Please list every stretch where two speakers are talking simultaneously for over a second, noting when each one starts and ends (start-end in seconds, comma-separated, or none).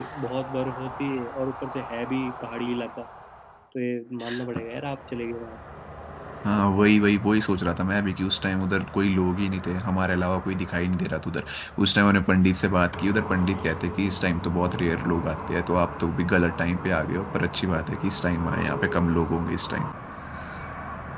none